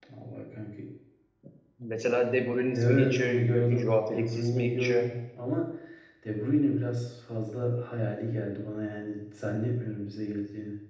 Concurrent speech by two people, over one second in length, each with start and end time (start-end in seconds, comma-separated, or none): 2.7-5.1